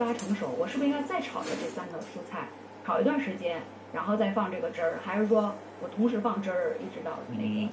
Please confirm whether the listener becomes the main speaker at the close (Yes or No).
Yes